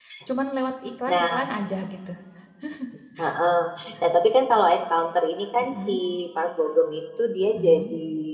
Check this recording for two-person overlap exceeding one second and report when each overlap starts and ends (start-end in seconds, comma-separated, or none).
none